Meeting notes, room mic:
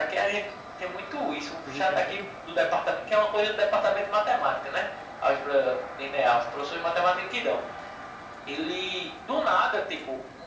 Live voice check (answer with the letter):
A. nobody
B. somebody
B